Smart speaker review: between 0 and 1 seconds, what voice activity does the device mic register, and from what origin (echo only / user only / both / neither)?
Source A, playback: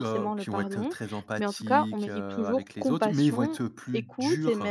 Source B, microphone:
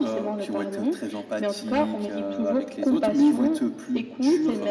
echo only